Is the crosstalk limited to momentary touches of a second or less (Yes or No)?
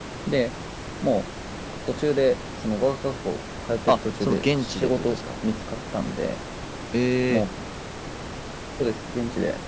No